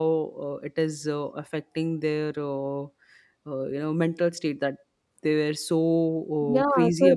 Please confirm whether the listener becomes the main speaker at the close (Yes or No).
Yes